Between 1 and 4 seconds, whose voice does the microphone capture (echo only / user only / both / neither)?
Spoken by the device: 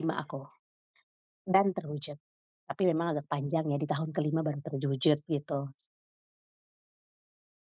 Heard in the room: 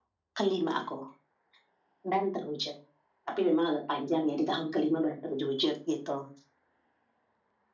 echo only